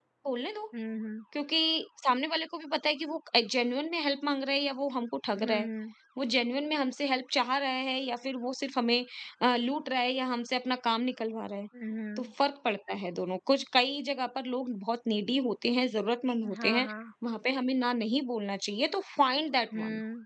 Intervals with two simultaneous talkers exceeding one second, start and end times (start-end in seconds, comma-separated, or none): none